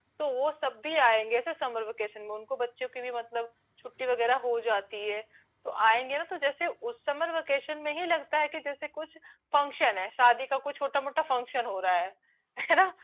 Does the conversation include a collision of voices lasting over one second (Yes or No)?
No